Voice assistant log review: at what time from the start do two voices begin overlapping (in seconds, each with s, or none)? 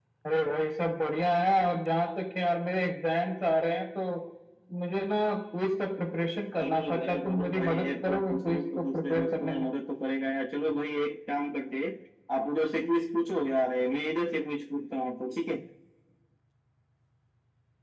6.6 s